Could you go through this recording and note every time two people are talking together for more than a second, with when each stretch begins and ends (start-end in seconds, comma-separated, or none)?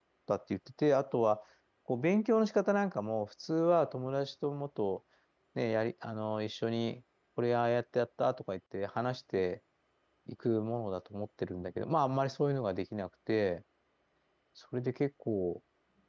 none